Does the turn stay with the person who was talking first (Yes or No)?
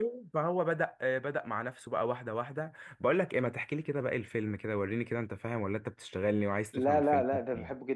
No